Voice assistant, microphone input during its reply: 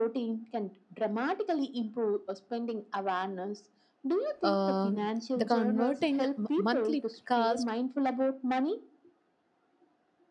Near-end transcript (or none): um, the converting m- monthly cost